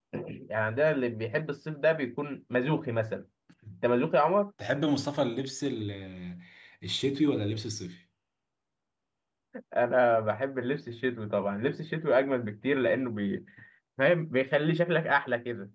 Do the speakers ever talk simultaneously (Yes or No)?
No